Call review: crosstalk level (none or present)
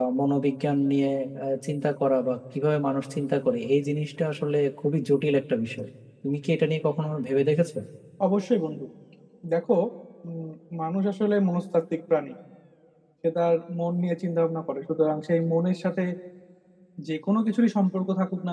none